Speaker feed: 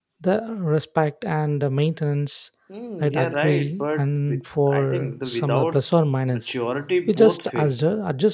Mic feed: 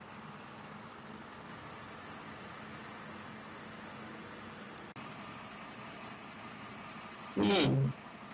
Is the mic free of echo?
Yes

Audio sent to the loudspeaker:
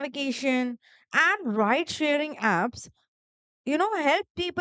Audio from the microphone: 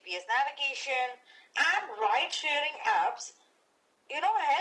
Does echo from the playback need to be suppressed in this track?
Yes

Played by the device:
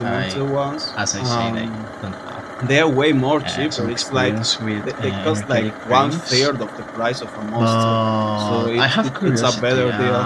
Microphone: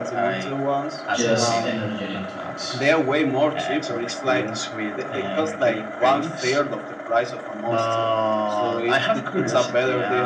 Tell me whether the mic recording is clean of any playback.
No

